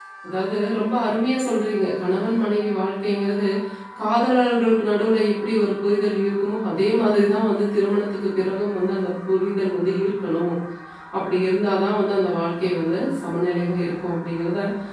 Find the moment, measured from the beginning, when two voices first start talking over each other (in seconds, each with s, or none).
none